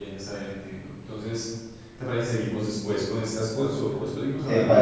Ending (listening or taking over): taking over